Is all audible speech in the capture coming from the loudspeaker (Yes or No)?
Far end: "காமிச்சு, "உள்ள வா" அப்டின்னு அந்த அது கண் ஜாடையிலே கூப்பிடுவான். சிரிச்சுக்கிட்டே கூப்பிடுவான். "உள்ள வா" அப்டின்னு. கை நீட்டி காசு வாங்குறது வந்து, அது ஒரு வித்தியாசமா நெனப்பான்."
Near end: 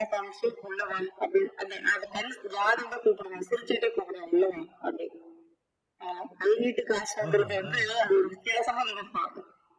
No